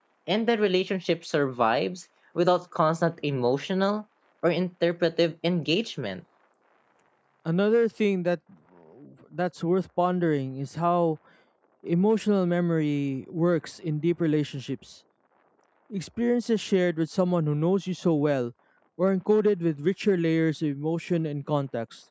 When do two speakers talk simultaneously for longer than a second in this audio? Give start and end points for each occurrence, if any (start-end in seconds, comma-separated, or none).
none